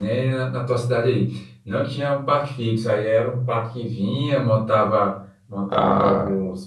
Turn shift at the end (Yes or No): No